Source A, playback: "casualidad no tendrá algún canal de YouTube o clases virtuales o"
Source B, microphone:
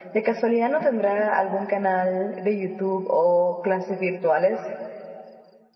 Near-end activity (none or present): none